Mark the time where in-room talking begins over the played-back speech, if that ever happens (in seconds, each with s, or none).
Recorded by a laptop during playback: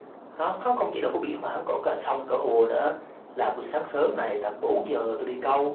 none